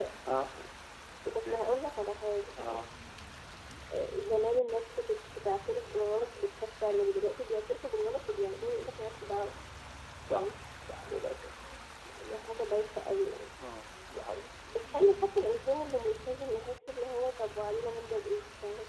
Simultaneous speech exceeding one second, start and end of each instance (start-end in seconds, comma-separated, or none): none